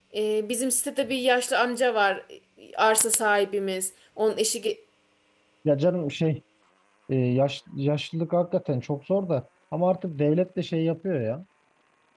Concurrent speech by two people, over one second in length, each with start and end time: none

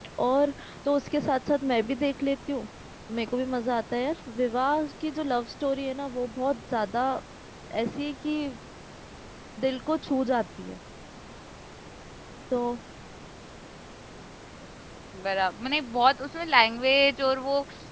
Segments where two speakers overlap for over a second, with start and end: none

